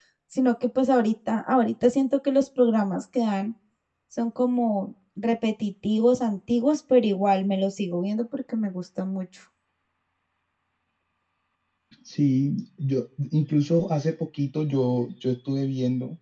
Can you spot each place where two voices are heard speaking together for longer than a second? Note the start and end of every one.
none

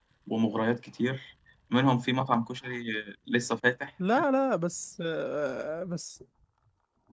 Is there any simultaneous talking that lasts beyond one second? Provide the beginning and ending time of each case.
none

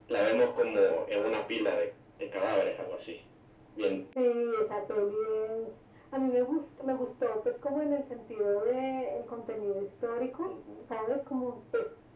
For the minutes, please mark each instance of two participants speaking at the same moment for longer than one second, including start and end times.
none

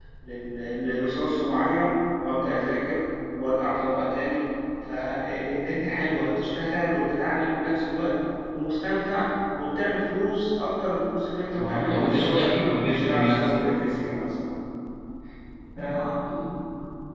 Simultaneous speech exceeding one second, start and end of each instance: 11.6-13.7

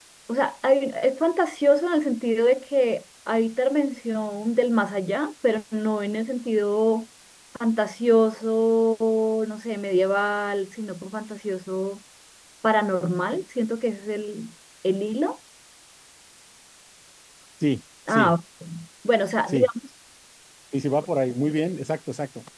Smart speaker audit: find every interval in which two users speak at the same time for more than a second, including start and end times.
none

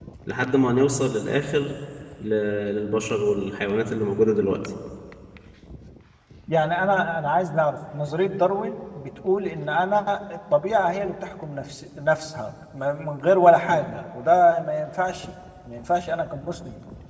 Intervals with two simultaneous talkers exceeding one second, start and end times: none

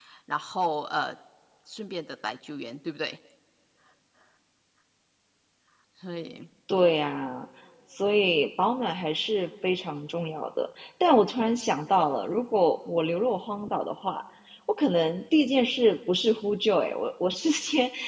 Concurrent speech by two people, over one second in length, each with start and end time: none

